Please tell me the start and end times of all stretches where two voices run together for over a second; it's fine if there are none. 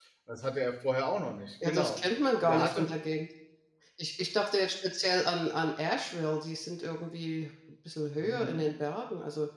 none

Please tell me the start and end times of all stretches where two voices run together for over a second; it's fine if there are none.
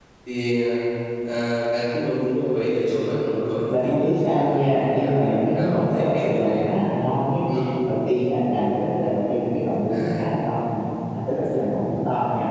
3.7-6.9

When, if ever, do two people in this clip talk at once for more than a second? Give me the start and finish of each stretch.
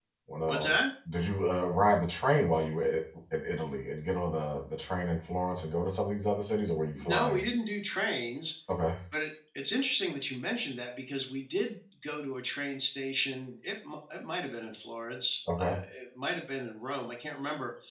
none

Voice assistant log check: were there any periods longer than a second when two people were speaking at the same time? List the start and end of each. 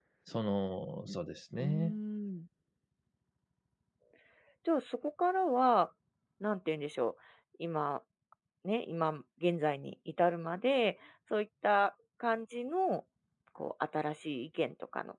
none

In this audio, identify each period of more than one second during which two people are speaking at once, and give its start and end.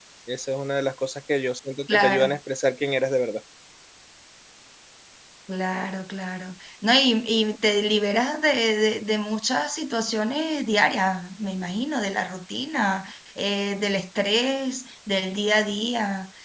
none

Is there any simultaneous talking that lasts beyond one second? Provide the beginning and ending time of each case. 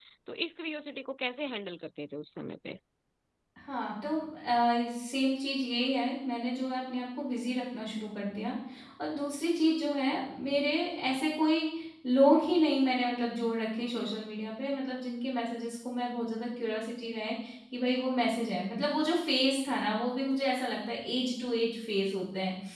none

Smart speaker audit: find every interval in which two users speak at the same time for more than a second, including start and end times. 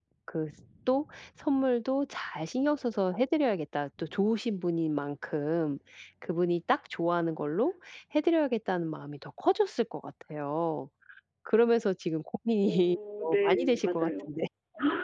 12.6-14.3

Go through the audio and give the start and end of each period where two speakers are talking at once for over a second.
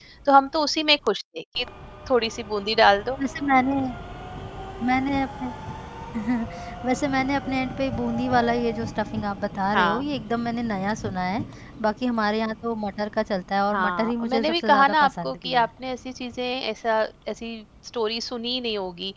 13.7-15.7

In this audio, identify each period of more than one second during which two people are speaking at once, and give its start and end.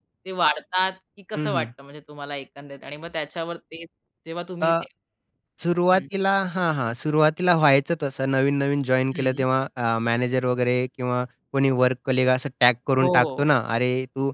none

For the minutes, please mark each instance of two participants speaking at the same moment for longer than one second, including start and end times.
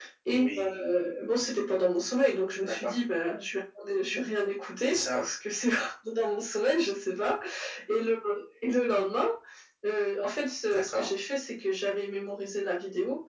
none

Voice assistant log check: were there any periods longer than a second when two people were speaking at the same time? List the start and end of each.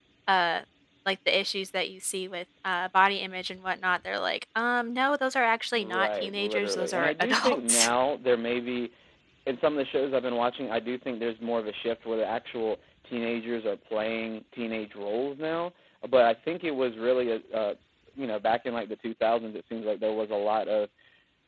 5.7-7.9

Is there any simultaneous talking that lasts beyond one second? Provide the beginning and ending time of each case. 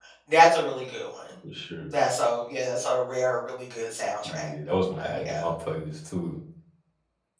none

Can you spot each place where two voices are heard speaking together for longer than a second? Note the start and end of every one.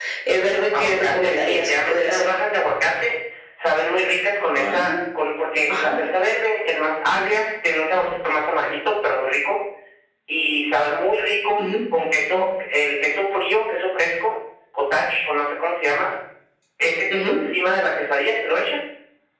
0.8-2.3

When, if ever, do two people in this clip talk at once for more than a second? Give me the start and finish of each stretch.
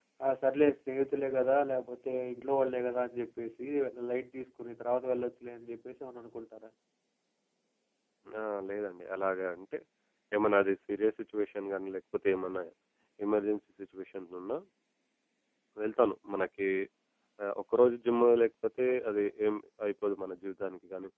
none

